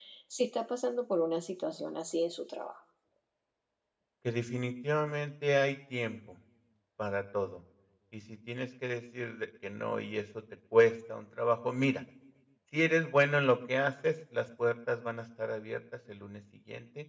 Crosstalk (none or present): none